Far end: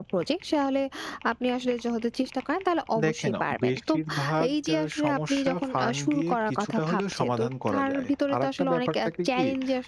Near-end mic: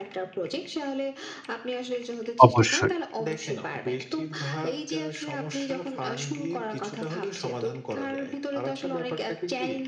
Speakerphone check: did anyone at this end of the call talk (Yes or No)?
Yes